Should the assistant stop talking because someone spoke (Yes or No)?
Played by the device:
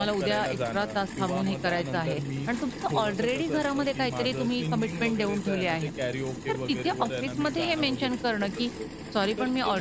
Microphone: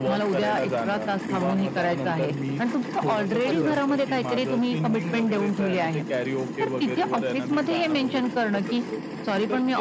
Yes